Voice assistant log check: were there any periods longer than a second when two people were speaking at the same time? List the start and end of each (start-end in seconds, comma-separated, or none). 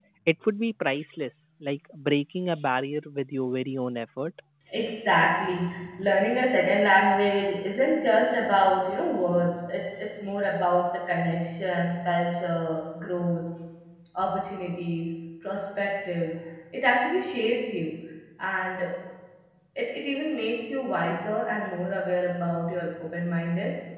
none